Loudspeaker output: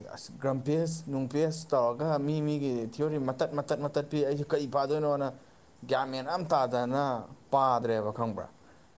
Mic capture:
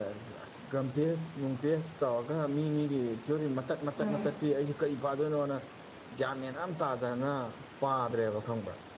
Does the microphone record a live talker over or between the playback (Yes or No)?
Yes